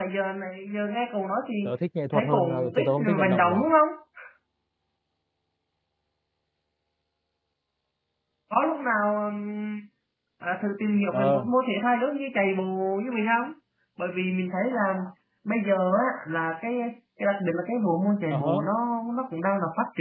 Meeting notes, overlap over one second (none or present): present